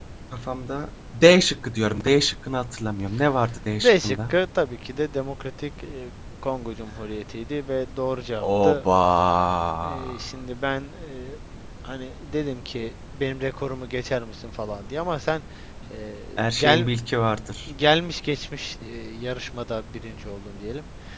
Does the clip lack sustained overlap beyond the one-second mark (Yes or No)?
Yes